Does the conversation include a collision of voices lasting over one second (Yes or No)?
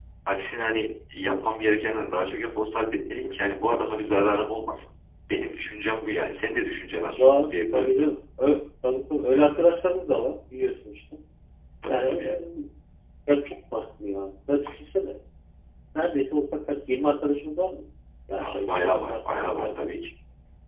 Yes